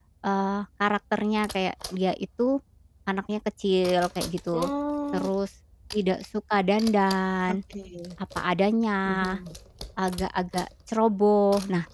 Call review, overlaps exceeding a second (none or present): none